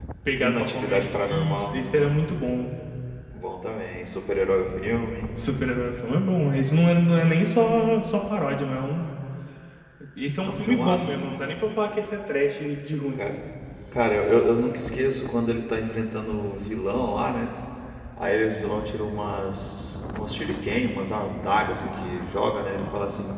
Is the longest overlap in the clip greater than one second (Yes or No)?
Yes